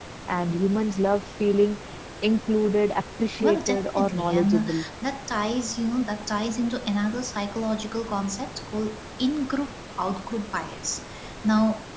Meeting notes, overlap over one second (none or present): present